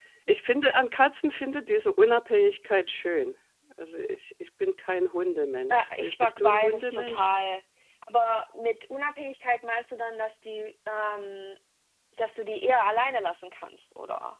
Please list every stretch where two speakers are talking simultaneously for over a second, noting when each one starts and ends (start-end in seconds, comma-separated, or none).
5.7-7.3